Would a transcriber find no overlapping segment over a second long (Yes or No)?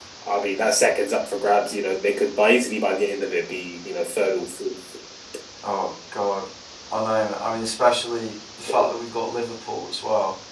Yes